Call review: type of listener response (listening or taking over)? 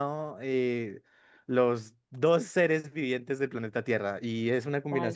listening